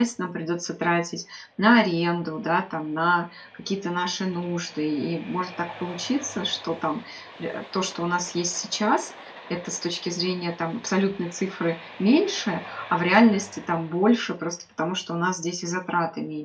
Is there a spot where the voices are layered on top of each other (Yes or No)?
No